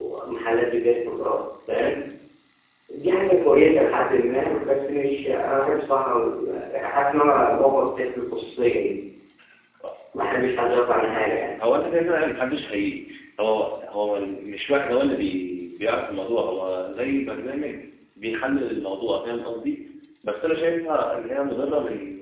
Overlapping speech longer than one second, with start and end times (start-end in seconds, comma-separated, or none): none